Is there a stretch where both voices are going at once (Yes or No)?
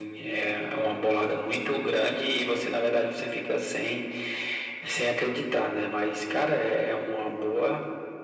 No